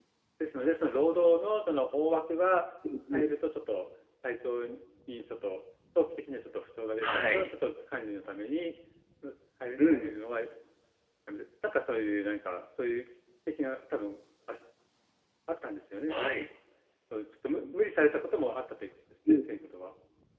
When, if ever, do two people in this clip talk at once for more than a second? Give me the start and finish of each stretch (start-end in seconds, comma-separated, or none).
none